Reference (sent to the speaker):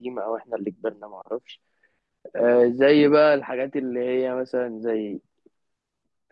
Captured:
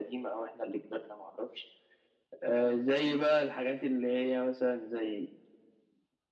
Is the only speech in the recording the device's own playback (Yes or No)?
Yes